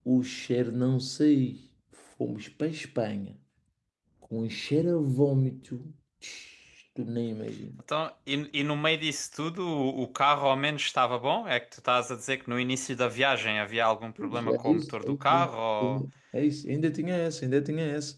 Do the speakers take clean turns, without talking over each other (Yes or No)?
No